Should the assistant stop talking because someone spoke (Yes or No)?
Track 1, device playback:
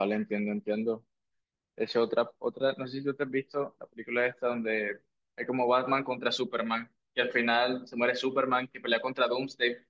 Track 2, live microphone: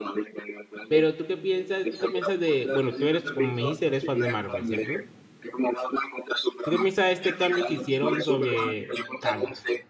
Yes